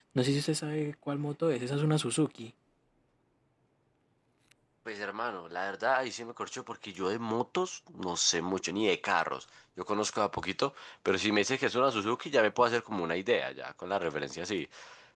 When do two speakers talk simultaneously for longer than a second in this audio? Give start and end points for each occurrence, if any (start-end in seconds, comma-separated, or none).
none